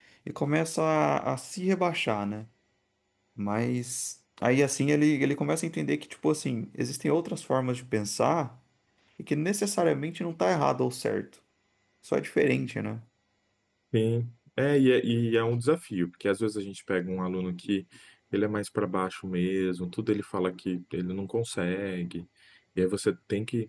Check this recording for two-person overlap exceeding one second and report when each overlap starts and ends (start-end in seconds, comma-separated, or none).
none